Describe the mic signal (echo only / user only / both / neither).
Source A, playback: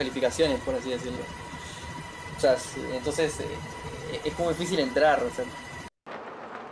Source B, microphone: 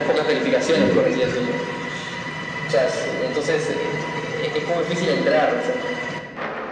both